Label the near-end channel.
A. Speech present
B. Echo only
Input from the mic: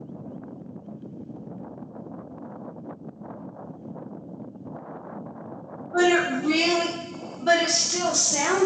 A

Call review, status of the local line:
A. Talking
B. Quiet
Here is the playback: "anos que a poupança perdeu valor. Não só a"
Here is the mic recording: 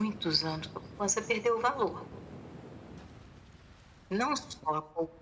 B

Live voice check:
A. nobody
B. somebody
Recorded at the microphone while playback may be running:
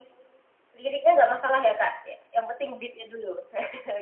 A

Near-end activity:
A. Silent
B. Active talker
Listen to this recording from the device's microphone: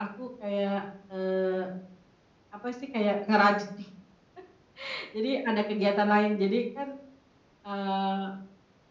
A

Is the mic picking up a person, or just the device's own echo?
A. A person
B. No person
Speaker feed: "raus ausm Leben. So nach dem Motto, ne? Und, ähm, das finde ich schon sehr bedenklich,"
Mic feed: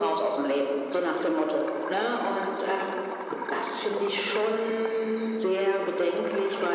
B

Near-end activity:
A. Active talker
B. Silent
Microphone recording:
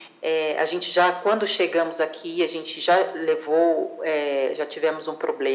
B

